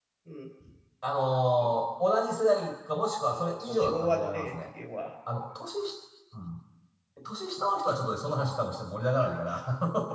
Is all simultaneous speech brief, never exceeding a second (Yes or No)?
No